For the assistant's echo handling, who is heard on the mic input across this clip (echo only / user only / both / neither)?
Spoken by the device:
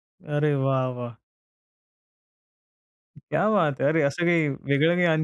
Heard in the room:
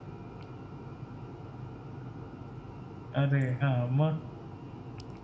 user only